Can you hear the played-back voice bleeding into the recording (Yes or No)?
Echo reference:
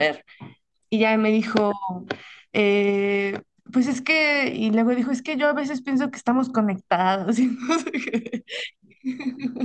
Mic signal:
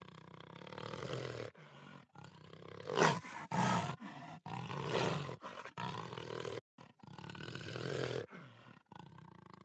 No